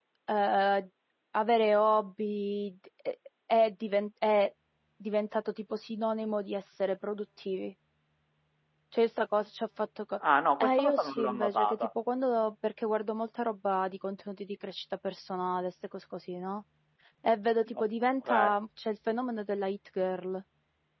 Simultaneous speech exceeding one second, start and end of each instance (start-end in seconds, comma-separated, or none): 10.6-11.9